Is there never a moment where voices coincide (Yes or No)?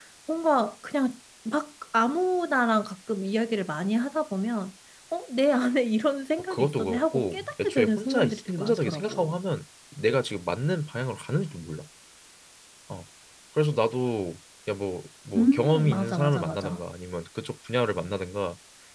No